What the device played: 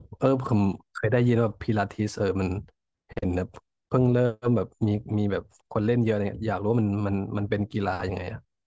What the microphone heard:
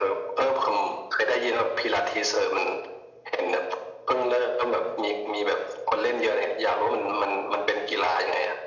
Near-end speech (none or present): none